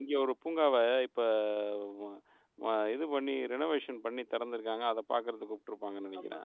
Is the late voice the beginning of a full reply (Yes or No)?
Yes